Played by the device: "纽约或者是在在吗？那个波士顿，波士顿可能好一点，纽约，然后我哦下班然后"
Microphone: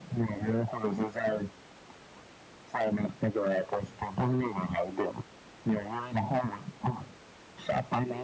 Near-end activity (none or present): none